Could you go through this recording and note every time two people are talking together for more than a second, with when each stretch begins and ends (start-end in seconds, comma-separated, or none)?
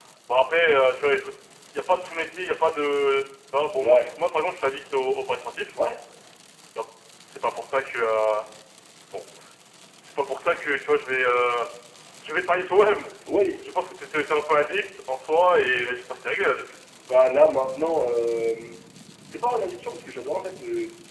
none